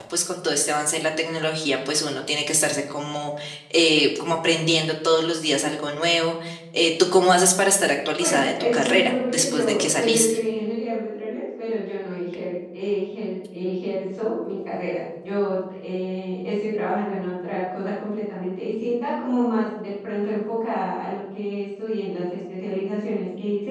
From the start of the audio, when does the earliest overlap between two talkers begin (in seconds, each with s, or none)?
8.2 s